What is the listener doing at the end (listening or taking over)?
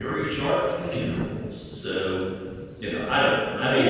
taking over